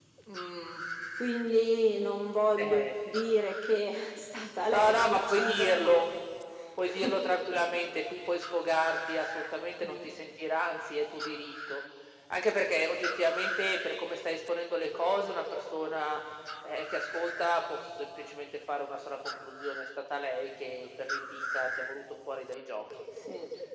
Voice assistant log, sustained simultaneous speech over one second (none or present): present